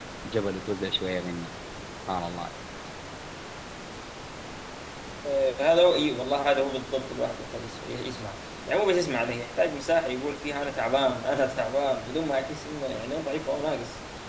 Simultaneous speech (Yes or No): No